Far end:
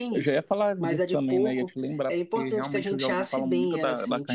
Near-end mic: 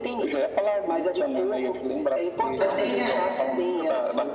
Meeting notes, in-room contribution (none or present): present